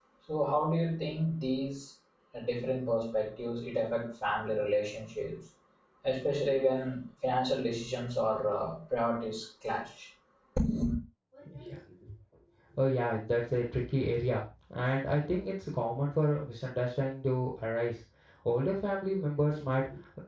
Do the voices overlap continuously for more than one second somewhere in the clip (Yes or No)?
No